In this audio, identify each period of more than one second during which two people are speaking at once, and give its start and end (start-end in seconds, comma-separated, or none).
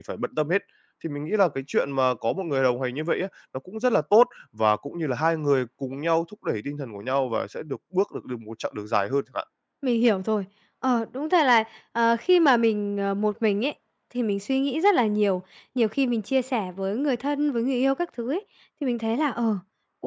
none